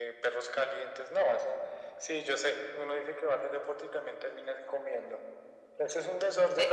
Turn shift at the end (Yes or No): No